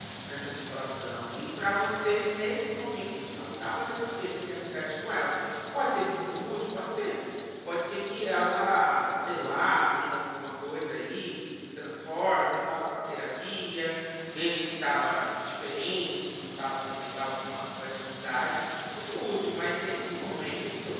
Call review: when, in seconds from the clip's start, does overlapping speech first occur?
none

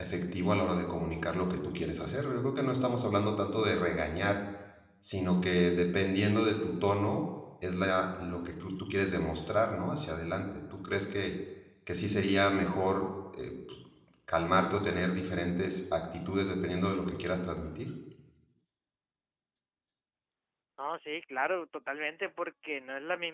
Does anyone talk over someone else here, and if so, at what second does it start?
none

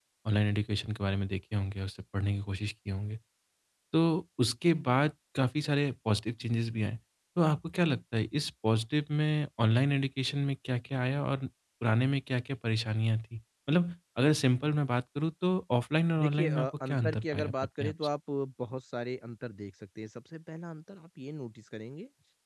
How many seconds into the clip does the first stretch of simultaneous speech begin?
16.2 s

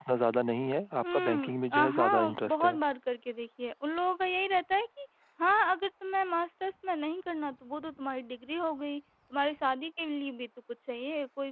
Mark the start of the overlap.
1.0 s

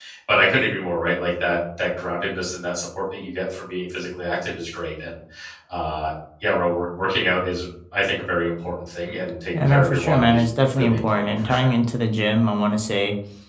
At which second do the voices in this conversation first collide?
9.5 s

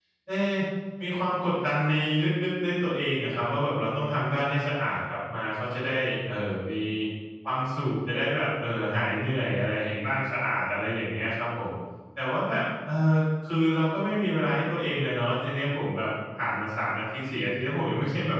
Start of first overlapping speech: none

